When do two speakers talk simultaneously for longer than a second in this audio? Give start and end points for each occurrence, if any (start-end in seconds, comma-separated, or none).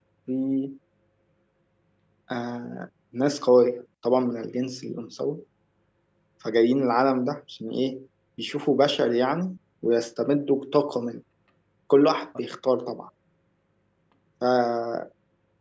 none